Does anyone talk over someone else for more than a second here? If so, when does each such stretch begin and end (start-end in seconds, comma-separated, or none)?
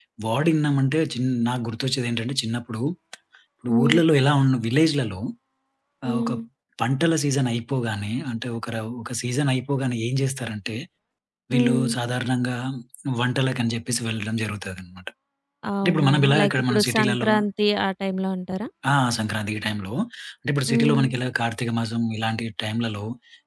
15.8-17.3